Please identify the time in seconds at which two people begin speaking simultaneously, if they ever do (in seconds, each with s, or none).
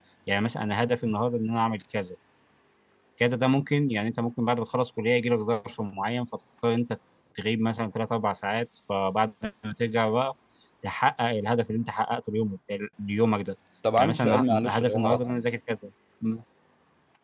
14.0 s